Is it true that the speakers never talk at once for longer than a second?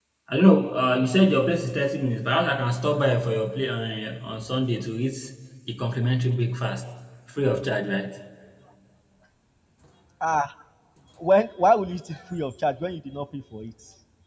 Yes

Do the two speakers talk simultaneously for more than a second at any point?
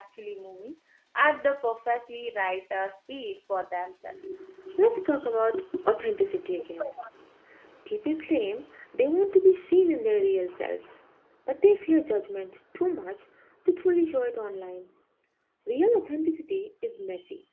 No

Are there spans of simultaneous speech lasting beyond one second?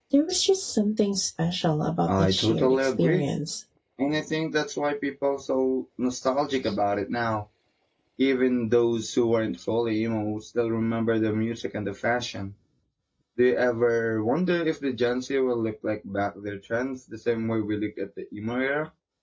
Yes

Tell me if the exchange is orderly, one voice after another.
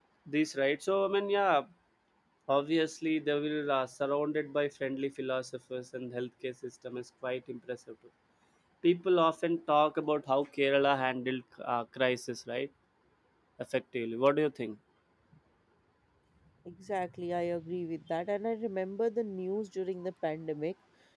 Yes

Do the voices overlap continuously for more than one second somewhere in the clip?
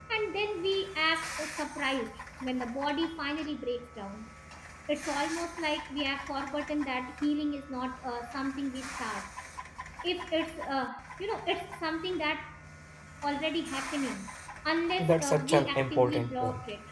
Yes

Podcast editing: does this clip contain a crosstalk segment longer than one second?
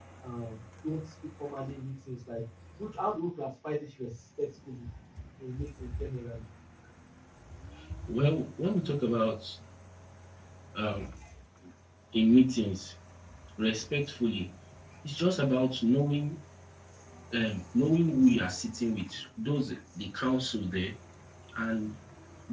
No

